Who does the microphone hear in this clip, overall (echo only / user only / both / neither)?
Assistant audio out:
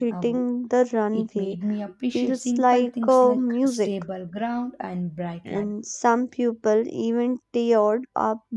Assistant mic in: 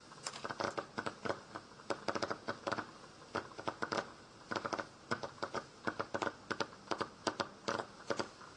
neither